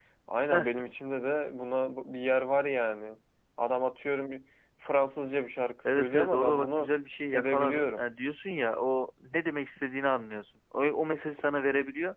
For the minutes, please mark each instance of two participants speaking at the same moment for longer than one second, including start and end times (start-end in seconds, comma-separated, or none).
5.9-8.1